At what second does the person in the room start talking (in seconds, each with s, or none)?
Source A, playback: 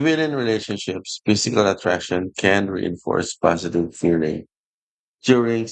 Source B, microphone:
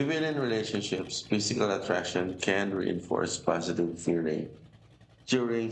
none